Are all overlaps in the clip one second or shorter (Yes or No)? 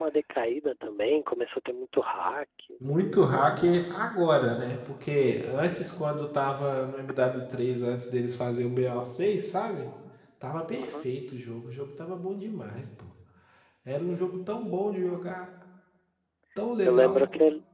Yes